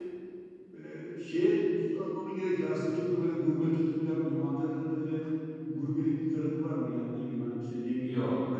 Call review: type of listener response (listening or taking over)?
listening